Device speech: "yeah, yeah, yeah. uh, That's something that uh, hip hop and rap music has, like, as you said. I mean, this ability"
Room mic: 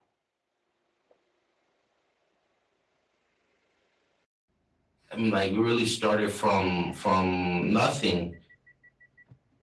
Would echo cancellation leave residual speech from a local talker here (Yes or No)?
Yes